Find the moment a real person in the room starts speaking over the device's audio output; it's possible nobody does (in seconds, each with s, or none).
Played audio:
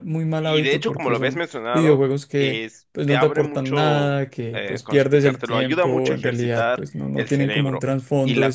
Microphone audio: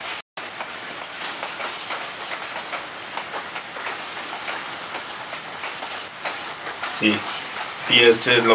6.9 s